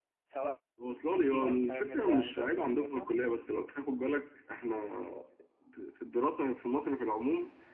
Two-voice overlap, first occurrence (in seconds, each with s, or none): 1.3 s